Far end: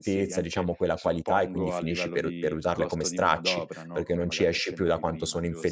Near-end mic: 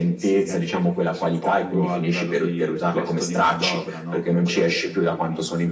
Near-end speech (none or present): none